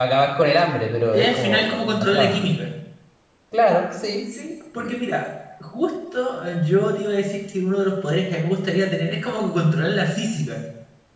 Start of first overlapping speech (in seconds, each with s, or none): 1.1 s